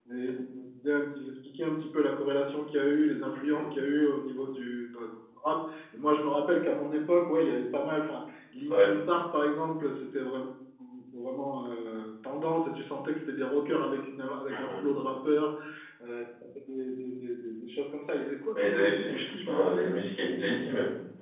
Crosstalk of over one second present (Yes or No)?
Yes